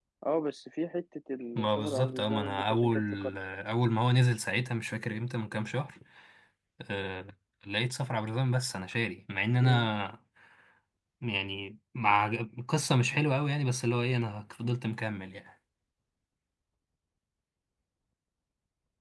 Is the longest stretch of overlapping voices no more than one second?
No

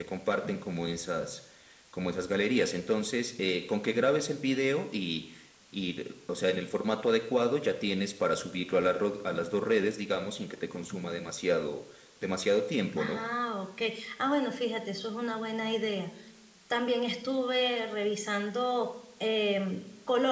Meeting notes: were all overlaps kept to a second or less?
Yes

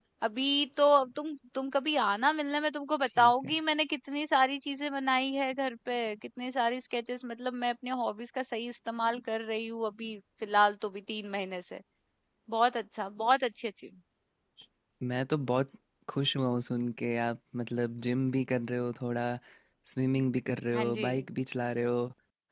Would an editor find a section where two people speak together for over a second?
No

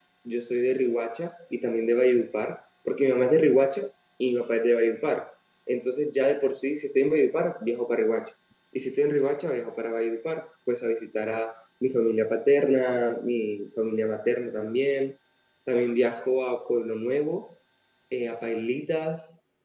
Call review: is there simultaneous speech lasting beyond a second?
No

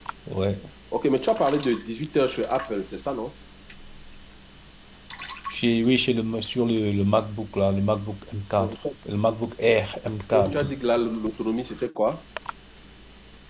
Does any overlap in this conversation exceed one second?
No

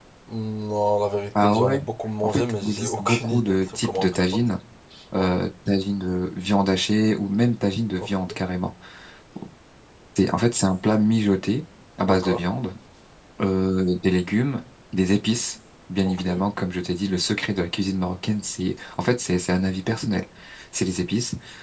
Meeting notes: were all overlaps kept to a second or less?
No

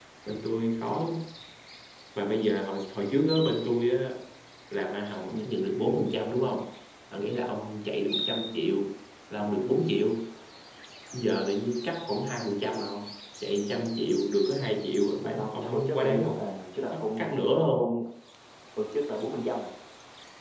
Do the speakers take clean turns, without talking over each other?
No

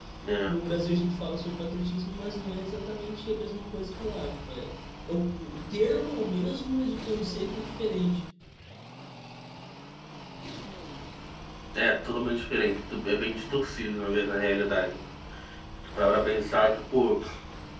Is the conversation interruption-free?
Yes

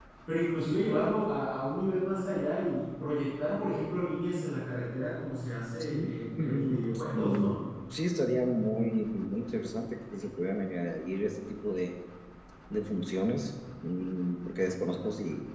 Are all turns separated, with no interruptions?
No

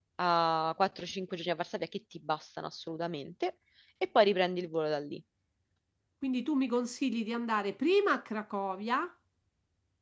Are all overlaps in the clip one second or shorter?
Yes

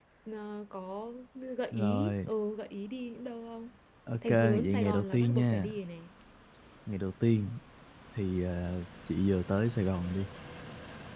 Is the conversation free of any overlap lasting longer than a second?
No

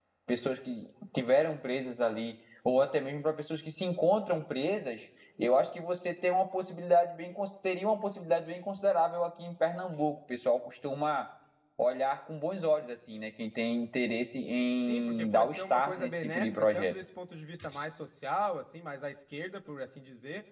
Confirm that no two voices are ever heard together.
No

